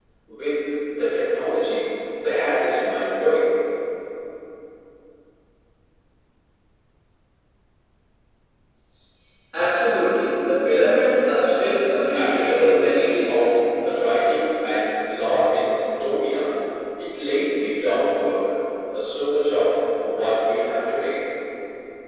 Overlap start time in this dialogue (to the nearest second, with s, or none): 12 s